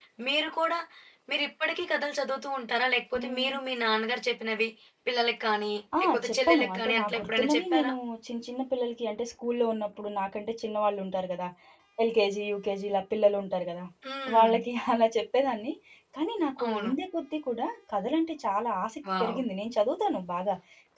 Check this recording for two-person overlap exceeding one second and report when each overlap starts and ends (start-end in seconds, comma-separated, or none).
6.0-7.9